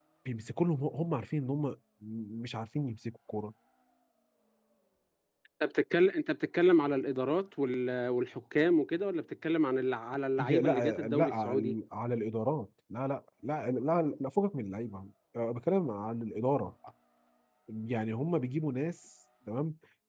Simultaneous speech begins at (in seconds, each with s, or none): 10.4 s